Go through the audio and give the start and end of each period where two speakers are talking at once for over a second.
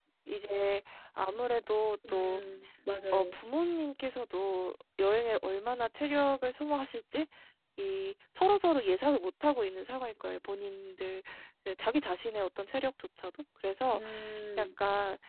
none

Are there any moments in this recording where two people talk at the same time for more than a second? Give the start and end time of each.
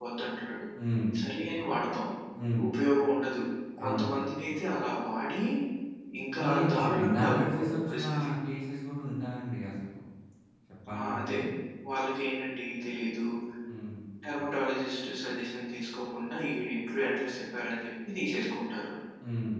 6.4-8.0

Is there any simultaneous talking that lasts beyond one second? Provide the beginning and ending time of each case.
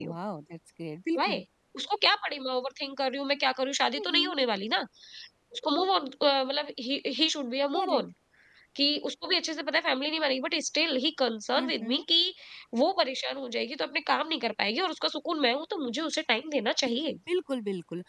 none

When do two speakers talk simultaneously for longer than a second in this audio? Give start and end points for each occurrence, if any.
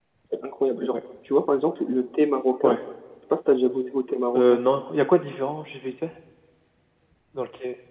none

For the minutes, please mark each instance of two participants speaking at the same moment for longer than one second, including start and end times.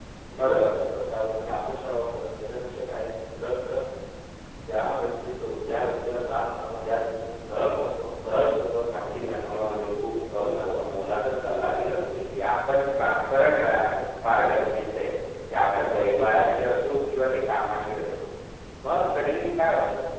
8.9-10.8

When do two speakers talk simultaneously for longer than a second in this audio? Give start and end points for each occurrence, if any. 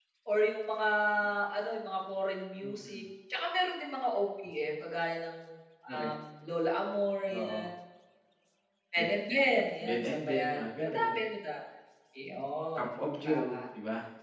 9.8-11.2

